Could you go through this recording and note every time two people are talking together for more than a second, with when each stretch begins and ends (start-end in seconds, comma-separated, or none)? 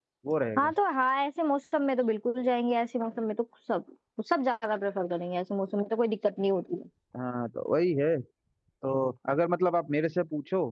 none